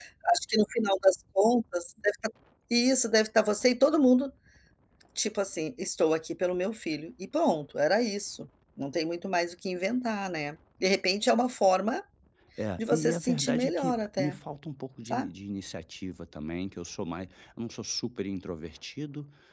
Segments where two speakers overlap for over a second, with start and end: 12.8-14.4

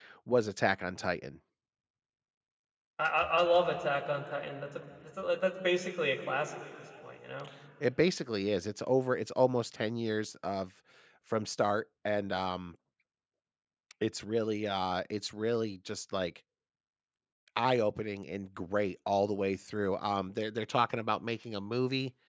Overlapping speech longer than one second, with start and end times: none

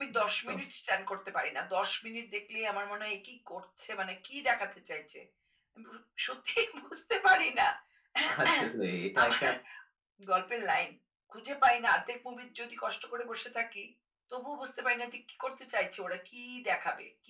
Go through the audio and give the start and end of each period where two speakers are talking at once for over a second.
none

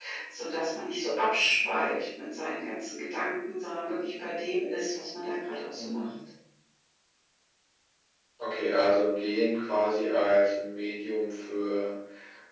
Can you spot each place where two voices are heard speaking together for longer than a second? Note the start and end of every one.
none

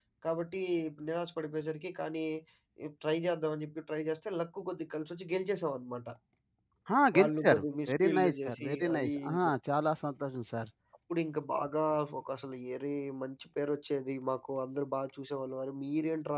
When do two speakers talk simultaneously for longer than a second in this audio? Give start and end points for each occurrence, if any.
7.2-9.5

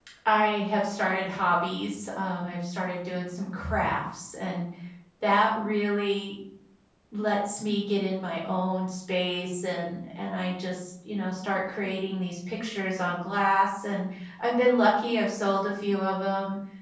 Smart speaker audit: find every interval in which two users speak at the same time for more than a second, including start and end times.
none

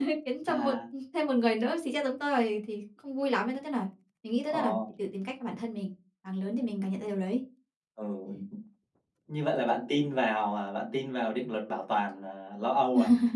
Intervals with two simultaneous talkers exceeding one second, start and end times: none

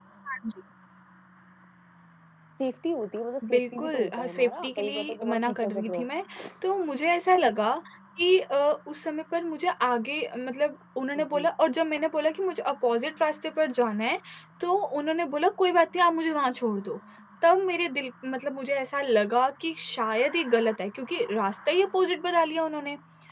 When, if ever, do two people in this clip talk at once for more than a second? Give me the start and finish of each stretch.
3.5-6.1

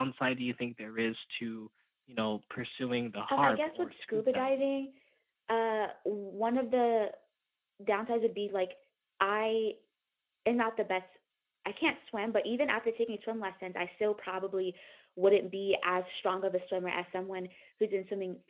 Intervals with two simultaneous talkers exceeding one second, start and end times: 3.3-4.5

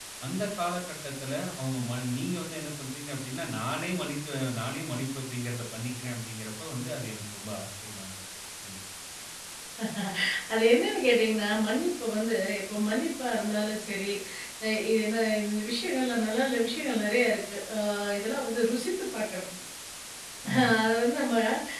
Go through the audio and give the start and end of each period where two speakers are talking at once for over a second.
none

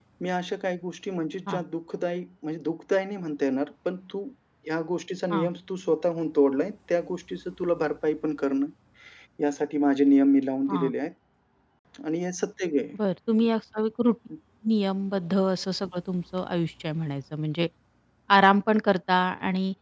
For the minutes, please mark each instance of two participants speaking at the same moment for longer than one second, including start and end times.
none

